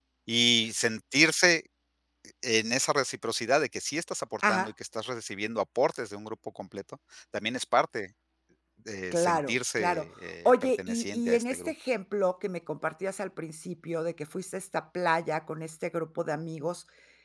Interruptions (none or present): present